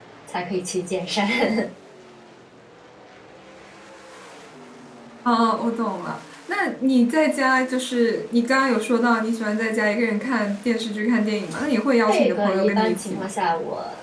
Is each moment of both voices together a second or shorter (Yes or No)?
No